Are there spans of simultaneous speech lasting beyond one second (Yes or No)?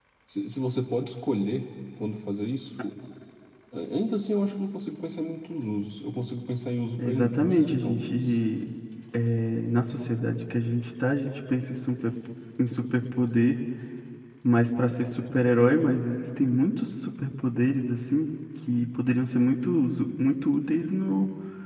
Yes